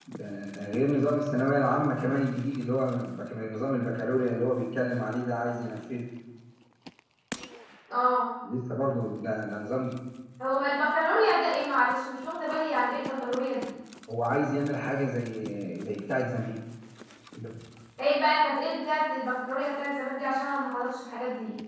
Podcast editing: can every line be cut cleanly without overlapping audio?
Yes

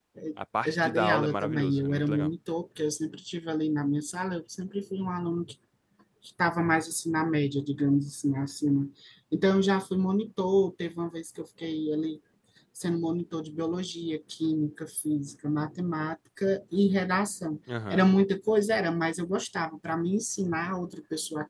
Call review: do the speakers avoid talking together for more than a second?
No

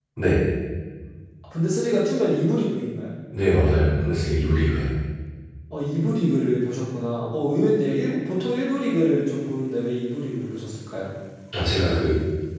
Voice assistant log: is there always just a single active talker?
Yes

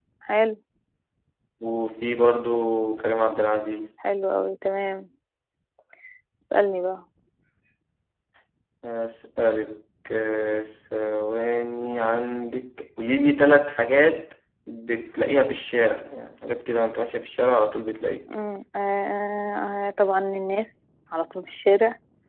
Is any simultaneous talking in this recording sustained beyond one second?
No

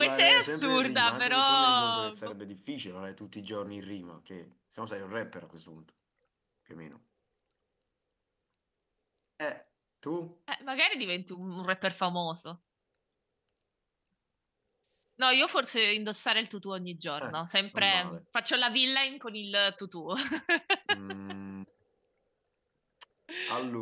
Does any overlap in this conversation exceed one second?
Yes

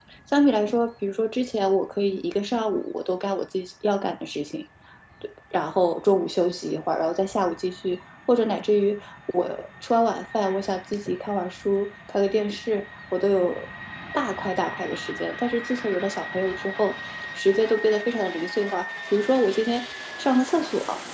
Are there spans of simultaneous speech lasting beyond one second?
No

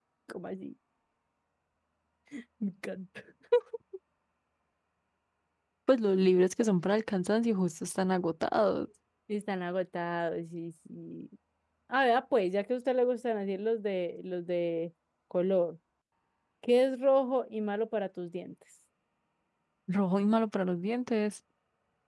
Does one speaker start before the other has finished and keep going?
No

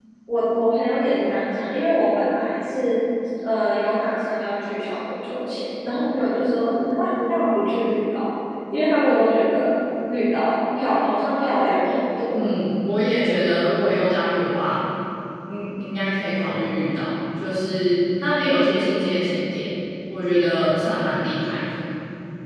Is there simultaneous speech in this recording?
No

